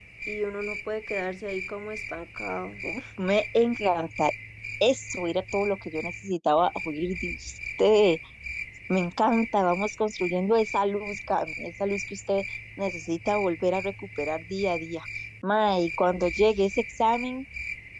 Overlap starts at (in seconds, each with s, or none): none